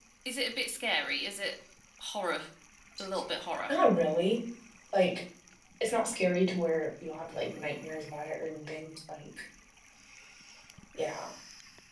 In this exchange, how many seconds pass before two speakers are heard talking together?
none

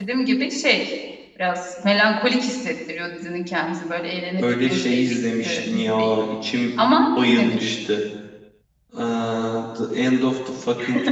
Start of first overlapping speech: 4 s

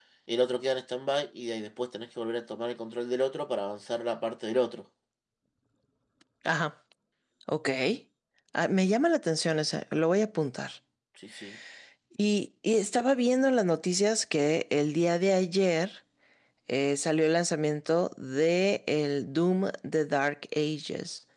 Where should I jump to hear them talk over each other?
none

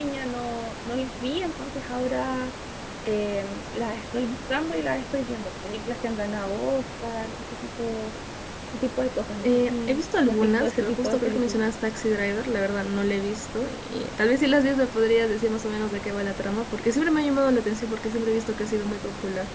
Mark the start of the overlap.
9 s

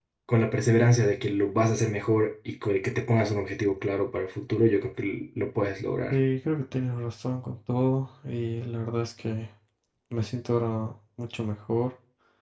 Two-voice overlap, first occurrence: none

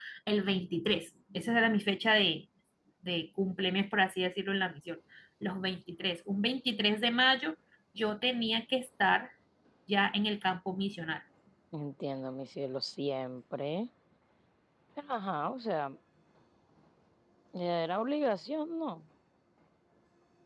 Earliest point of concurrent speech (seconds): none

